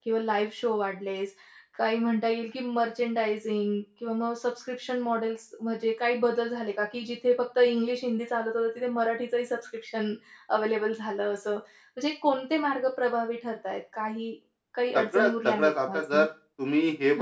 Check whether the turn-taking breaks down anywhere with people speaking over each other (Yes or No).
Yes